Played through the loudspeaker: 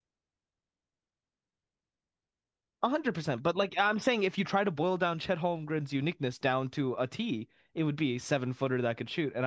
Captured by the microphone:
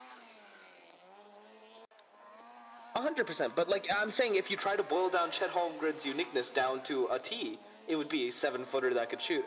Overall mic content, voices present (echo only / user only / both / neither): echo only